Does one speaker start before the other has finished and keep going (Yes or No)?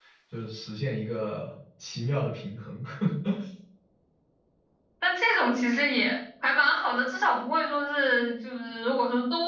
No